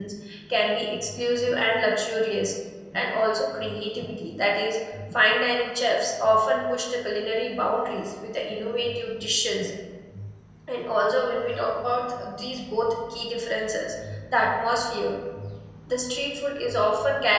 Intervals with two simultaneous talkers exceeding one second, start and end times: none

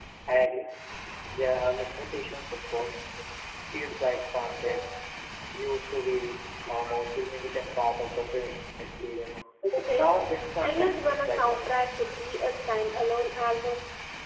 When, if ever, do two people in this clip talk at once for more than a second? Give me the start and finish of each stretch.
10.6-12.0

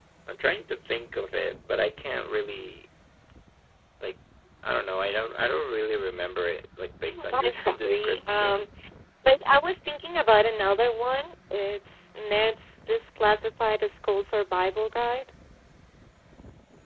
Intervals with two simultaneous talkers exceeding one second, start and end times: 7.3-8.7

